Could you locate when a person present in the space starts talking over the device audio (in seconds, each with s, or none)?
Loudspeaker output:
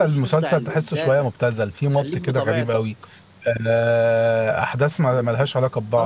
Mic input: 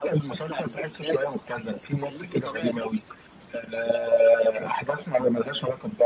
none